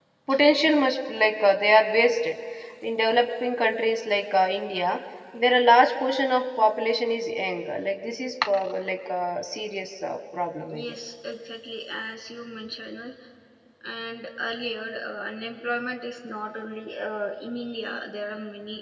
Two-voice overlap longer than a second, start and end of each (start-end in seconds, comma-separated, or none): none